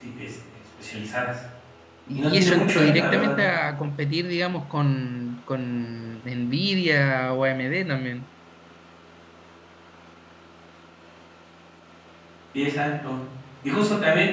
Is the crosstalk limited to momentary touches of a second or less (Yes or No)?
No